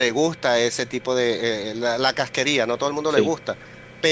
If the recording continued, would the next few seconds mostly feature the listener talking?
No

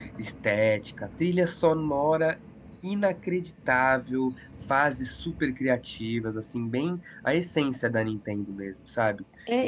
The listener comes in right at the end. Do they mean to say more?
Yes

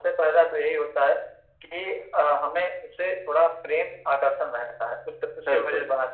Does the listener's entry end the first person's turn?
No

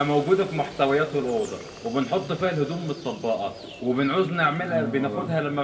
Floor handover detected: No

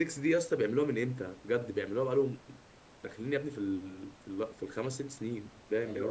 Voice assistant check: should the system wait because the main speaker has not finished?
No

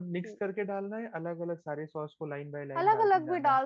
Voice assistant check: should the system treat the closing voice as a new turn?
Yes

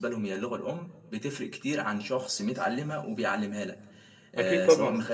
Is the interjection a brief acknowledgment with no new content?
Yes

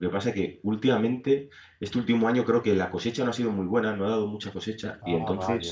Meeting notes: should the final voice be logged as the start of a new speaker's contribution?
No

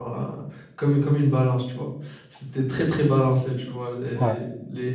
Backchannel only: Yes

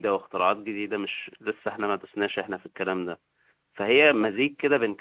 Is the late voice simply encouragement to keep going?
Yes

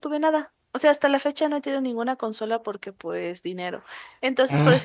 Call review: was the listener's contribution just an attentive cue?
Yes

